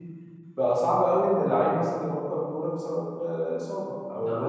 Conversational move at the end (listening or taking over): listening